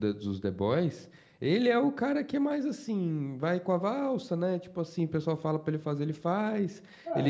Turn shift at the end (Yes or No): Yes